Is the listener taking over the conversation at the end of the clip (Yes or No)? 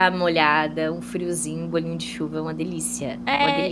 Yes